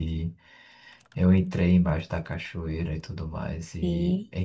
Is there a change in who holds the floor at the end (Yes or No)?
No